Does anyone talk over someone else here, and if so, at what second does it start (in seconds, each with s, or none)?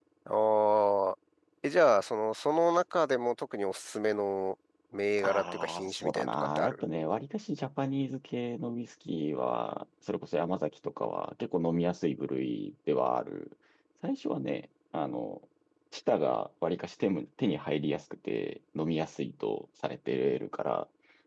5.2 s